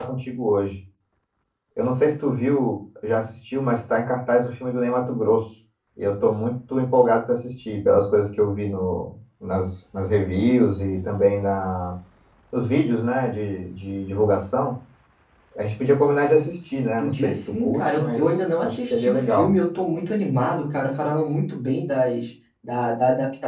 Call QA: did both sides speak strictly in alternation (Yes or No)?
No